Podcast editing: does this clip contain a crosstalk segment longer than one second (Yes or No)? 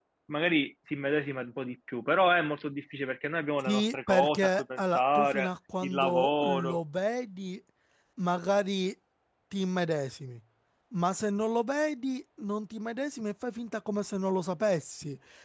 Yes